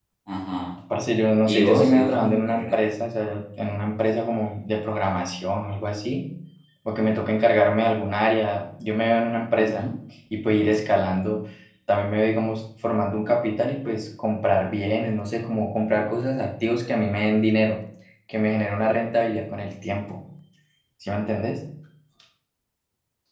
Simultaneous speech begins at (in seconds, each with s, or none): 1.5 s